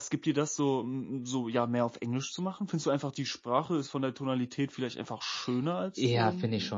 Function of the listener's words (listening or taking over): taking over